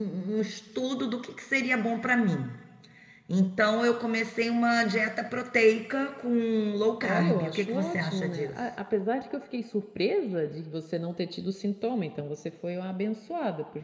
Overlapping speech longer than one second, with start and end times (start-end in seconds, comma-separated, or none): 7.0-8.6